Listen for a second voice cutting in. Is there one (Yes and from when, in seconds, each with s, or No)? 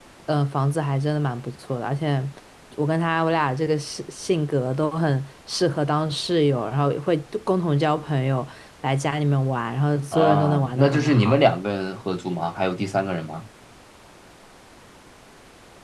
Yes, from 10.1 s